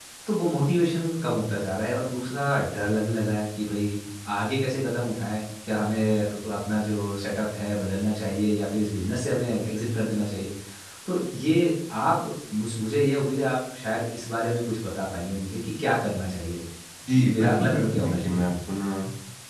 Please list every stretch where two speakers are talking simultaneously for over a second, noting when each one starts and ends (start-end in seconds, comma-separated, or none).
17.1-18.4